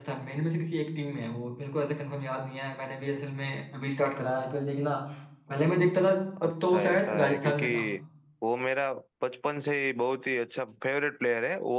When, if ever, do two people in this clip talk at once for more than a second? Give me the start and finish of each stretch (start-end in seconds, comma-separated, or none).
6.4-7.7